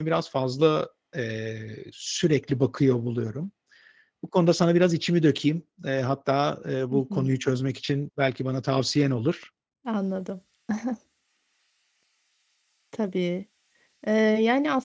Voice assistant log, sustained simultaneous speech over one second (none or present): none